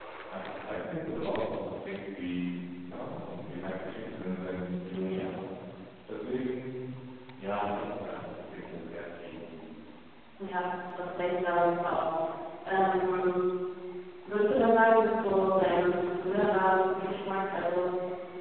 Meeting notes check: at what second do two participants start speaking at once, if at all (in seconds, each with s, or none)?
none